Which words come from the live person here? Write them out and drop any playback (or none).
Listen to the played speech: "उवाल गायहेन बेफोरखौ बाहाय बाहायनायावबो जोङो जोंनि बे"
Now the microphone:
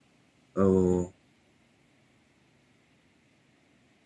औ औ।